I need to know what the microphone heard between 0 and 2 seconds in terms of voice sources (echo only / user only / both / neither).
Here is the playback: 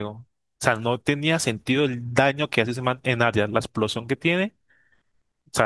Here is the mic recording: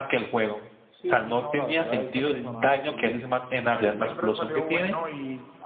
both